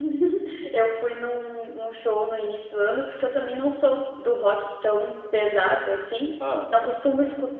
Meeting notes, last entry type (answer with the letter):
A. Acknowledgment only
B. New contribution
A